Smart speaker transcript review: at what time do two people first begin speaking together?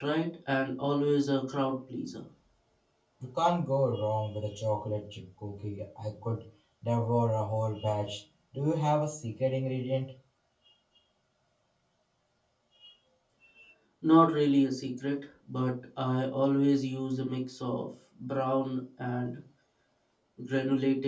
none

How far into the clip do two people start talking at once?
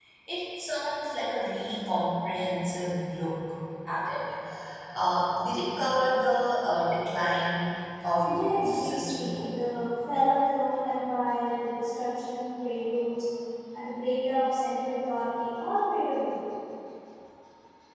8.2 s

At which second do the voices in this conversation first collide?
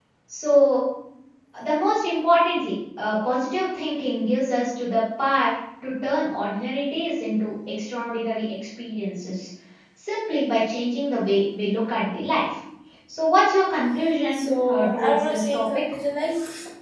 14.3 s

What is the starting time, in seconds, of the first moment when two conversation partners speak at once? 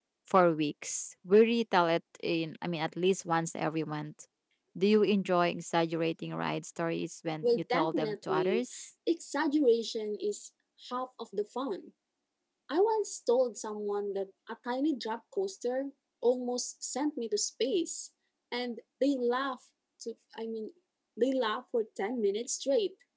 7.4 s

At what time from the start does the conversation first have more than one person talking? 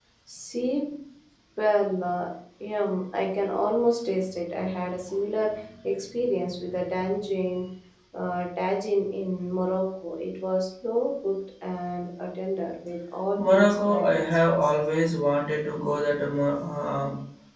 13.4 s

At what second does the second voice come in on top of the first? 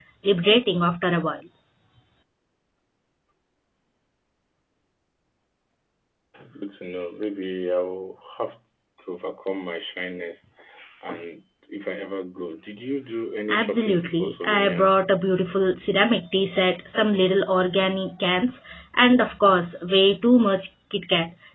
13.5 s

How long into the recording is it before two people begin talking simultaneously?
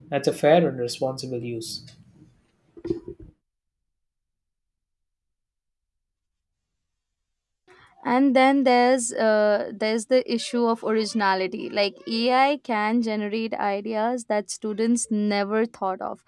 none

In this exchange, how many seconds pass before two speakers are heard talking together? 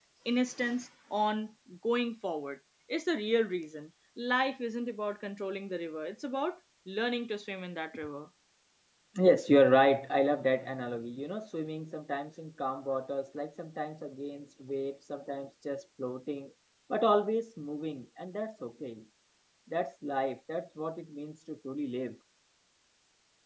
none

